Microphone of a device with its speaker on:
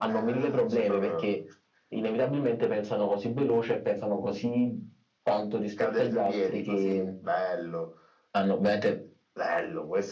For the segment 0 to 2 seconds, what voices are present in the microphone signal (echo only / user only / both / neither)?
echo only